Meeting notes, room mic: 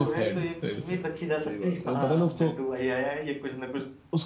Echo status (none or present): present